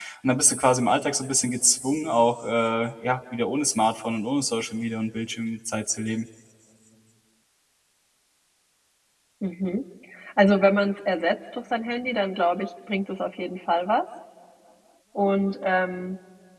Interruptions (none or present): none